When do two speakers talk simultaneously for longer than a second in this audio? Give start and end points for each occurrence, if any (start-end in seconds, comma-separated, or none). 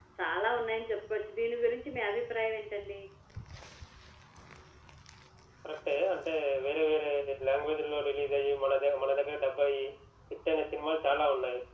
none